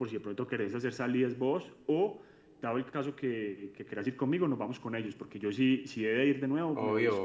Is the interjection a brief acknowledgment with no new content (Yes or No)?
No